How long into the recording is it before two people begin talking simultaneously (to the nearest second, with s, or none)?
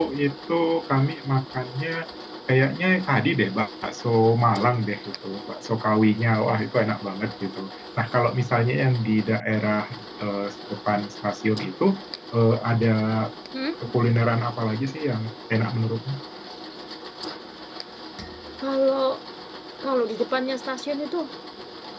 none